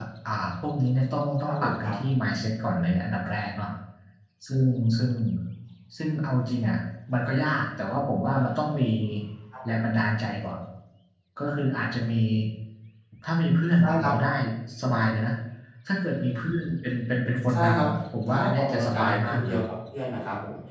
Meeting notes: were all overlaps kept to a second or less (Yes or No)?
No